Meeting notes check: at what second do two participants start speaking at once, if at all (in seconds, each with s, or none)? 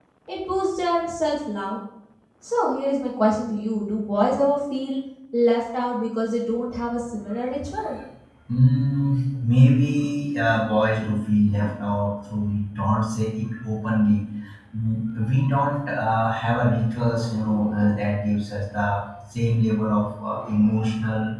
none